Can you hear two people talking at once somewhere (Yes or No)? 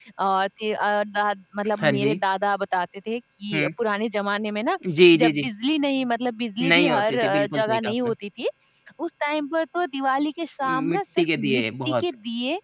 Yes